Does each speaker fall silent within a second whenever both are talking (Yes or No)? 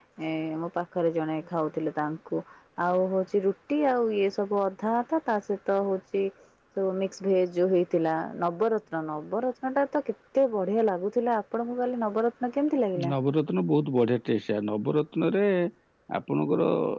Yes